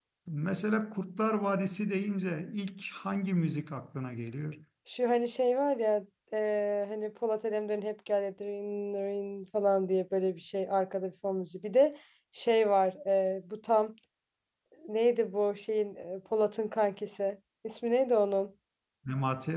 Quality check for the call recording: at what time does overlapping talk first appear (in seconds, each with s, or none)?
none